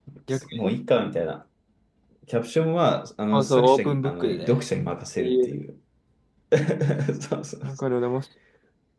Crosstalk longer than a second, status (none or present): present